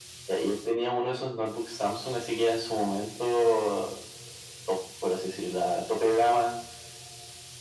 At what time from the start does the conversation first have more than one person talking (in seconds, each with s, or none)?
none